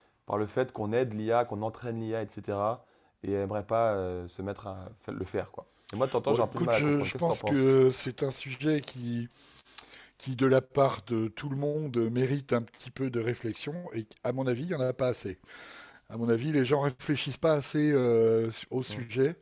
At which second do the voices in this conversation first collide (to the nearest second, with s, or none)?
6 s